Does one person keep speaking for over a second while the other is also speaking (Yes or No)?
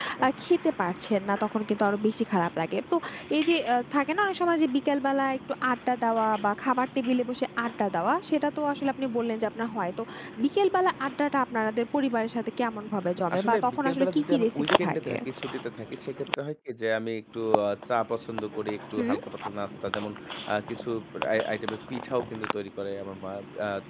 Yes